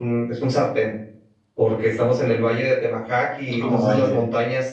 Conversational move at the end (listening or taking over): listening